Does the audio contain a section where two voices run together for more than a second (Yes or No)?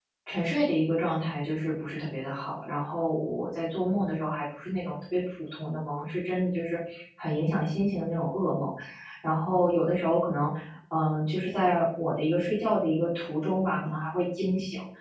No